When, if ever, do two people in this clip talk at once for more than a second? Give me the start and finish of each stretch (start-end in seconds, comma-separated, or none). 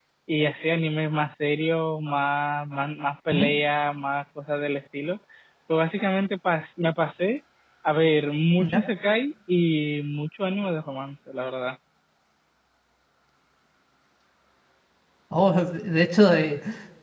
none